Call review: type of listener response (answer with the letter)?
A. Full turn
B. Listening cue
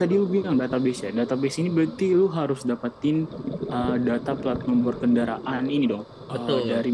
B